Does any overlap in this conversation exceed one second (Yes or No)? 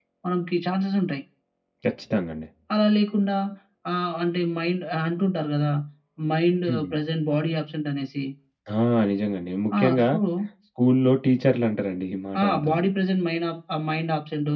No